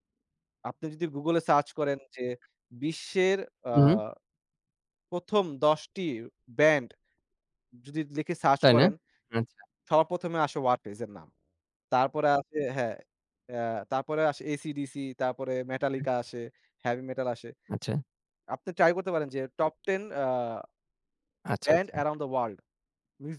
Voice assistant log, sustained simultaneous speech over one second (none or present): none